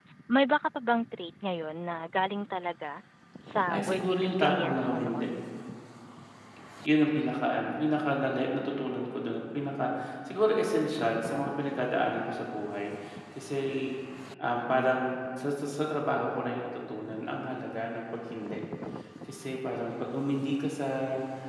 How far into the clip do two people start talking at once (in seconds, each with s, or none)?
3.7 s